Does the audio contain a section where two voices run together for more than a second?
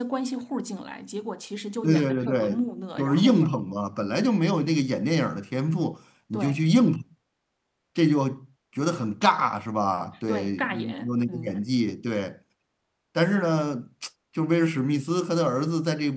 Yes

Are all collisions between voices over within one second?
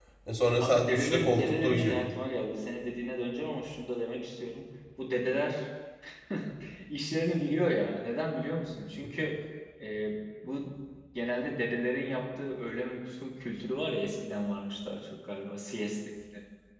No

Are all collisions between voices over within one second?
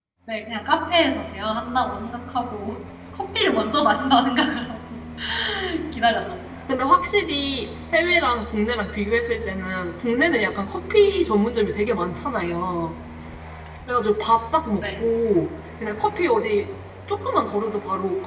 Yes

